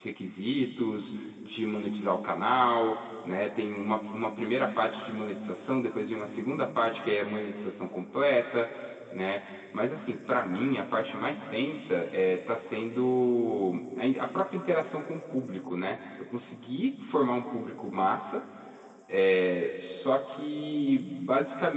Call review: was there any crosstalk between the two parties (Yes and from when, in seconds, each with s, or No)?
No